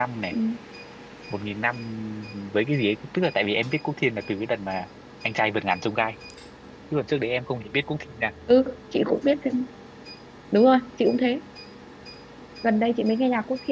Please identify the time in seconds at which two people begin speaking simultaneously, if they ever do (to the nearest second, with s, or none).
none